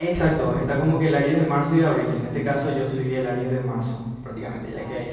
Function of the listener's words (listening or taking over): listening